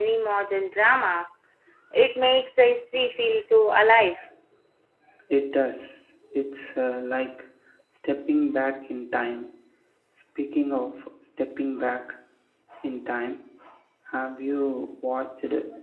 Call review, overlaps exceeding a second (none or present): none